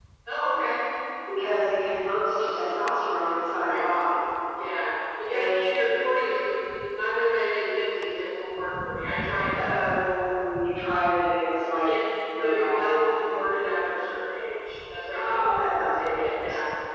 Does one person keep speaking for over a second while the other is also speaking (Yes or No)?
Yes